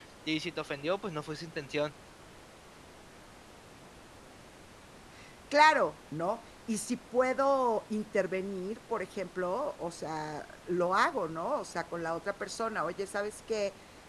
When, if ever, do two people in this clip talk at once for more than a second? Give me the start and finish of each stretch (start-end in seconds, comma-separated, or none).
none